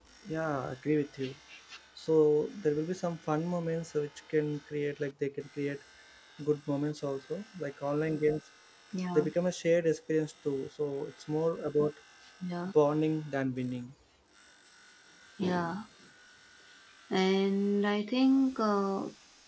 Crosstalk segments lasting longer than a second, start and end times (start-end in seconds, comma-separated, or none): none